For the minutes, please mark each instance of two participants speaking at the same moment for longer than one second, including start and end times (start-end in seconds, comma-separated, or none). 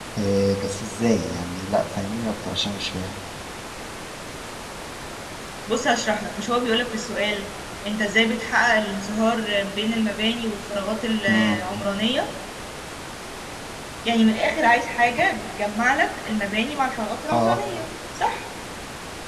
none